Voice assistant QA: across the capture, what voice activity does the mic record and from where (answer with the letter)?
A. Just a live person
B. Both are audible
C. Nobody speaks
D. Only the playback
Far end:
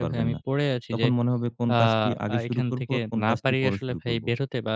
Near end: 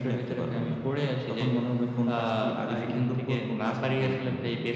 D